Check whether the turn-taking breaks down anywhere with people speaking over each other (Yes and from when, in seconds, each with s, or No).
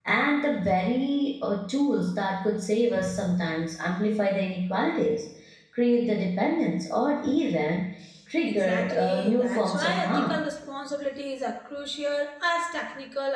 Yes, from 8.4 s